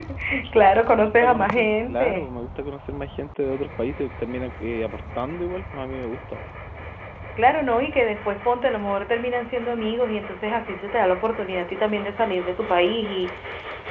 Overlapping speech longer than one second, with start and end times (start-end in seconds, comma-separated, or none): 0.5-2.2